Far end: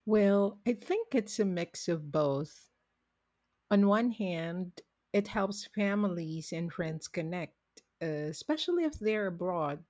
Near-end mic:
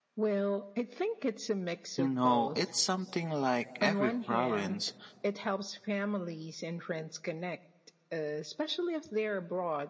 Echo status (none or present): present